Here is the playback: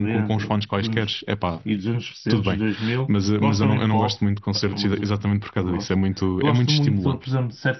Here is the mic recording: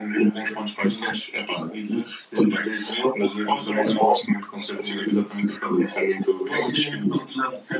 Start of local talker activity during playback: none

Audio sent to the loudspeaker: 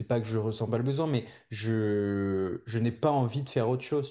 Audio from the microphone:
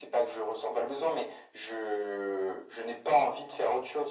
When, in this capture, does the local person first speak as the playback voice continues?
none

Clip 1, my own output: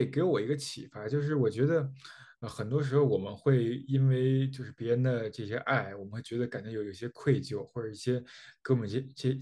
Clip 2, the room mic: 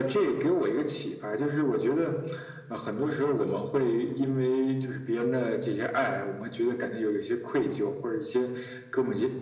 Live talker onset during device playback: none

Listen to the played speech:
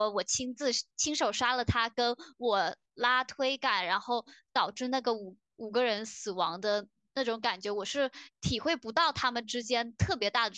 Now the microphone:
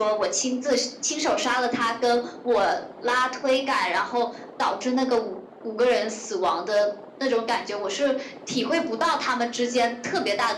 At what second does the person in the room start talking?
none

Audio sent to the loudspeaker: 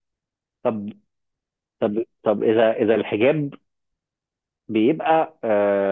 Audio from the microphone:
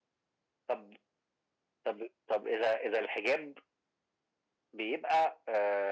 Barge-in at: none

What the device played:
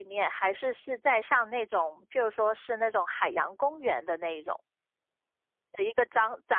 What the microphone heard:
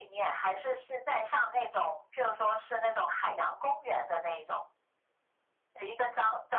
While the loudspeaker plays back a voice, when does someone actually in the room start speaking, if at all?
none

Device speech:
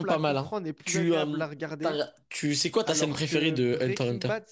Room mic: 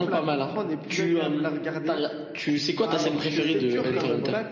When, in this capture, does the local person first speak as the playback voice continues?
2 s

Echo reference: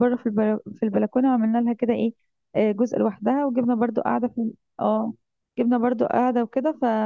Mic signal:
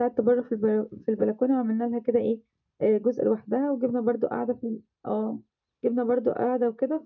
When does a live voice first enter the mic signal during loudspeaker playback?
none

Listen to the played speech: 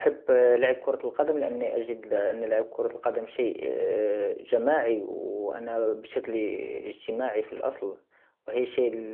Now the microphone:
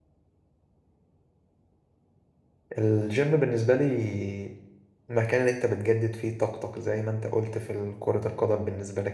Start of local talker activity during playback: 3 s

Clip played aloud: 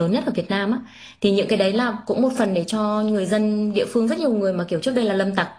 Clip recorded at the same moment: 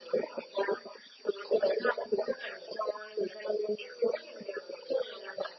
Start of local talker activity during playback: none

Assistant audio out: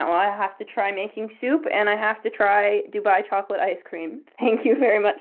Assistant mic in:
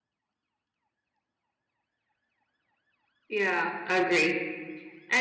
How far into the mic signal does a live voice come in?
3 s

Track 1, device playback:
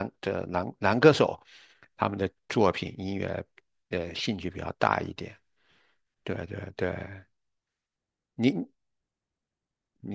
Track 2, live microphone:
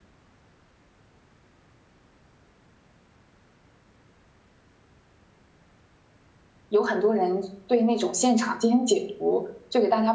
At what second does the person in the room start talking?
7 s

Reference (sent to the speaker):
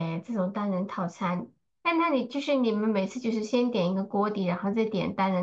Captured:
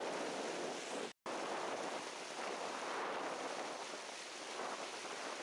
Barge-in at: none

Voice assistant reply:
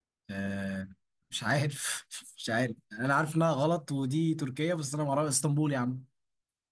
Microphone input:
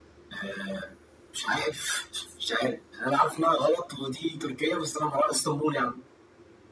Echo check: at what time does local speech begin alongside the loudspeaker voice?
none

